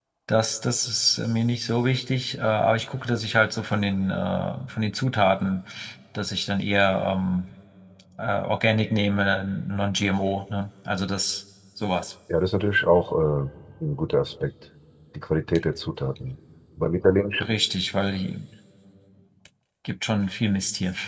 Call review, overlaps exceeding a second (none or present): none